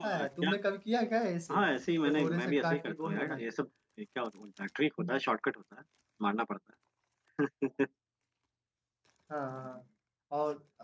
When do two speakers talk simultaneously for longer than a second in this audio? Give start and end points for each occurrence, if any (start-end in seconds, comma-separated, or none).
2.0-3.4